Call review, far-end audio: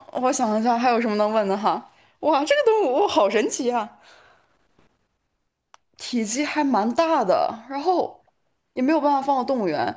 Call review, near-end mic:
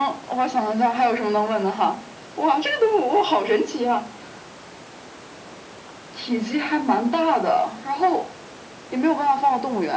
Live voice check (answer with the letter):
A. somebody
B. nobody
B